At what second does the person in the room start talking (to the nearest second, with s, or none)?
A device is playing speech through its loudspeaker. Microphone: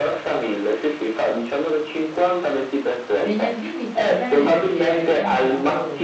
3 s